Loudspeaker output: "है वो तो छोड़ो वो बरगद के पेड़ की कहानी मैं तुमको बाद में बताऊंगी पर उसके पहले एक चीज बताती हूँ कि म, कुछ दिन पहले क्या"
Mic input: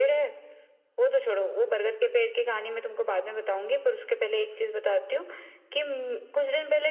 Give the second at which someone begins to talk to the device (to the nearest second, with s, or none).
none